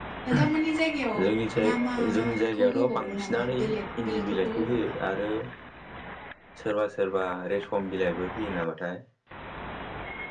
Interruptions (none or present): present